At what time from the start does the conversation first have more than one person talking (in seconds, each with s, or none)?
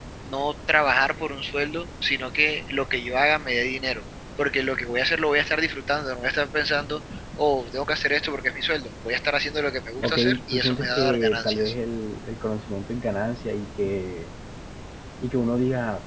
10.0 s